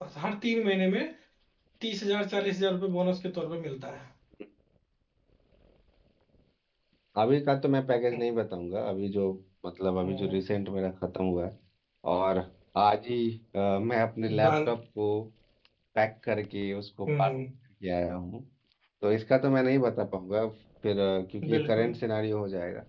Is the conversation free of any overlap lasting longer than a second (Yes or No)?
Yes